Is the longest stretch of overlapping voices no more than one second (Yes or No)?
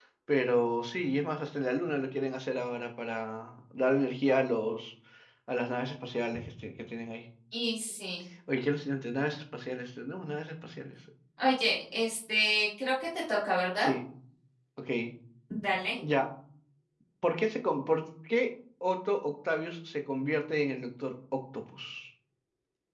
Yes